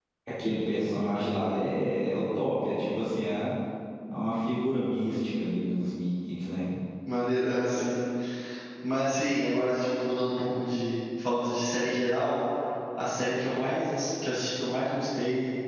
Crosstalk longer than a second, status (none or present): none